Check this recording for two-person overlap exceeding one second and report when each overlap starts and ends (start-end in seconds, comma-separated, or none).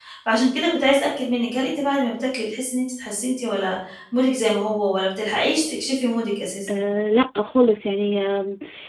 none